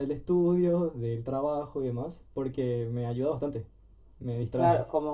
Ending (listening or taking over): taking over